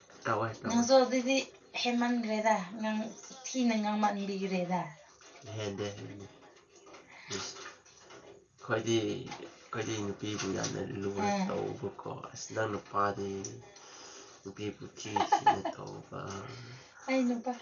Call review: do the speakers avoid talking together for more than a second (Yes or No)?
Yes